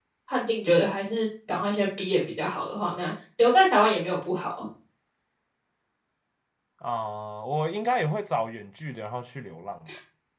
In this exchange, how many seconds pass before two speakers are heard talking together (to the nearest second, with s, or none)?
none